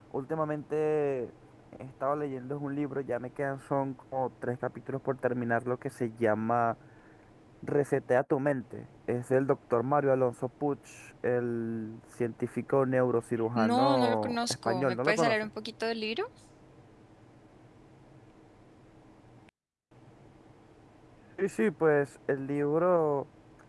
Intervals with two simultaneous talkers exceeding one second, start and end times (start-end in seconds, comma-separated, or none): 13.6-15.3